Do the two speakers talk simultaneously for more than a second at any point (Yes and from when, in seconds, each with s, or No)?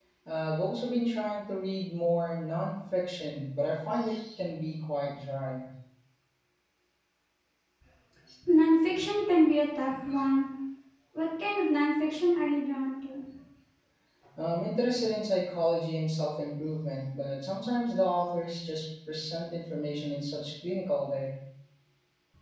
No